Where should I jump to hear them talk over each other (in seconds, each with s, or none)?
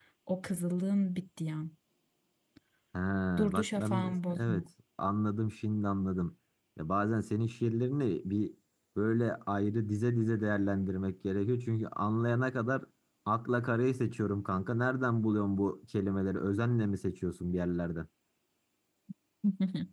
3.4 s